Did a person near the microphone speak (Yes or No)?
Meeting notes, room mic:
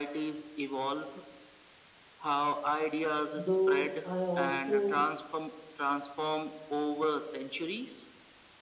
Yes